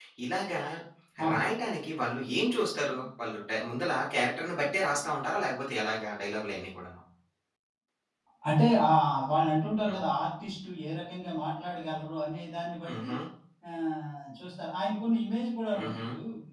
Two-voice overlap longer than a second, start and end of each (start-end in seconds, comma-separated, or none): none